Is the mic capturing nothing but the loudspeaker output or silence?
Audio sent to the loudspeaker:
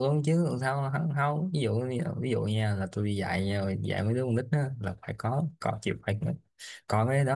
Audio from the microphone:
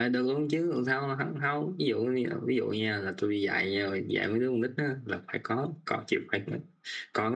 Yes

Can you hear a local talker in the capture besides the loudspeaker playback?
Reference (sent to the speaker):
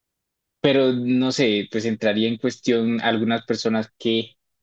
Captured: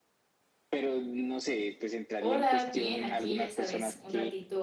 Yes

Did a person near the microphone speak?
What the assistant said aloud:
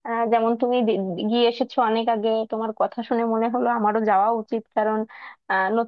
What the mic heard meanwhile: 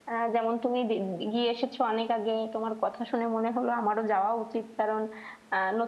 No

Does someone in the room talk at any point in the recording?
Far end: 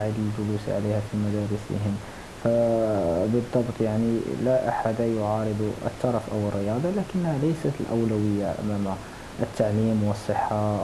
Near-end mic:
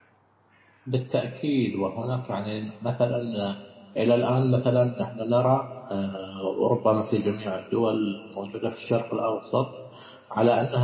Yes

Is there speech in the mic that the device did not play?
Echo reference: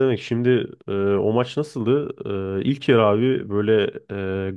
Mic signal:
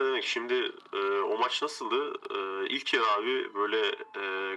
No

